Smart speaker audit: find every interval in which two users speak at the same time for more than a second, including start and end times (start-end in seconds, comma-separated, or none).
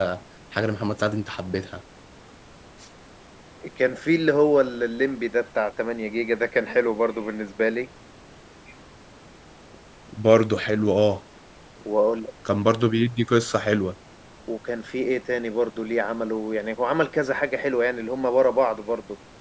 none